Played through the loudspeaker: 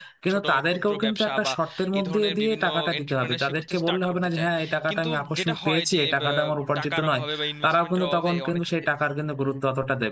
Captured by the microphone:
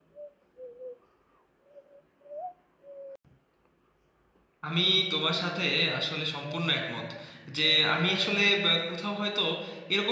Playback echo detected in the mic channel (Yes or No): No